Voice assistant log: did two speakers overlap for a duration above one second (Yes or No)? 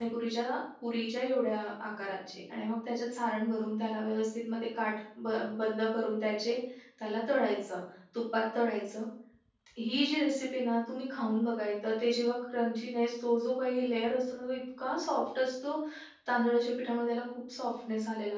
No